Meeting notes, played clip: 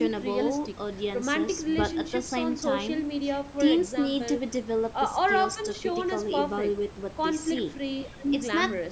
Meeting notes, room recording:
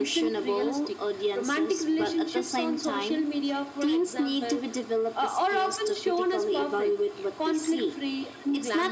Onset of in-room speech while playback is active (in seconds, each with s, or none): none